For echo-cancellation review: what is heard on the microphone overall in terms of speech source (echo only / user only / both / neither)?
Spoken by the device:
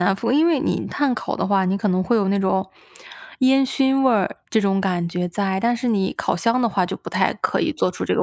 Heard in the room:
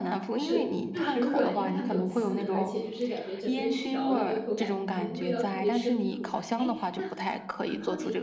both